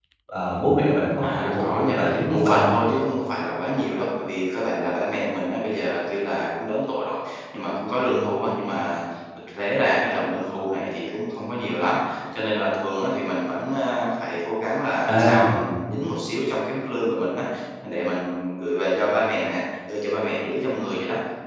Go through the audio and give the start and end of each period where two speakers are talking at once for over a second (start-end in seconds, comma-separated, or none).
1.2-2.7